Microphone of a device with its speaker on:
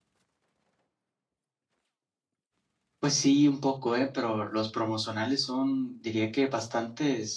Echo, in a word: none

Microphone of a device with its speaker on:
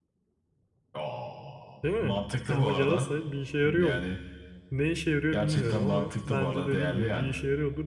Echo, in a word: present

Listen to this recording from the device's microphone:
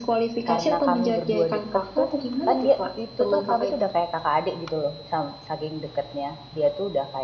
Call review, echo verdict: present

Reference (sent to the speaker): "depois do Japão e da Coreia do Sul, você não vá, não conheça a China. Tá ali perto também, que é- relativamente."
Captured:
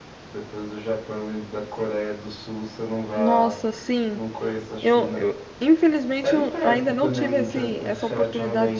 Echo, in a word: present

